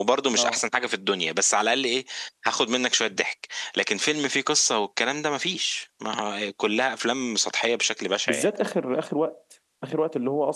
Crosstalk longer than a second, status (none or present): none